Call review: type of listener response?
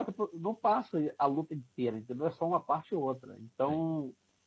listening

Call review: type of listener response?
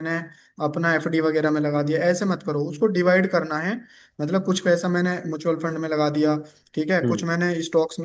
listening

